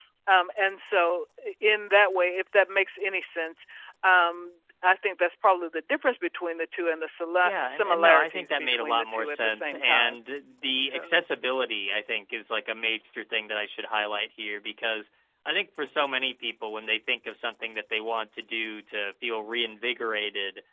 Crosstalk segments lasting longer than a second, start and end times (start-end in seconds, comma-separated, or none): 7.4-10.2